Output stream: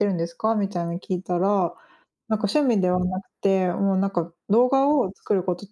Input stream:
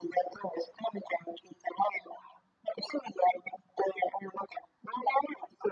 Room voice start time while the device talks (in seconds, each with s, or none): none